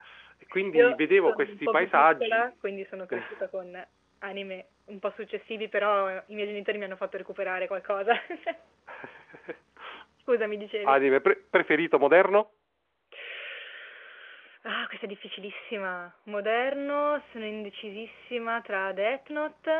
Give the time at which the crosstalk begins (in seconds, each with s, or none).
0.7 s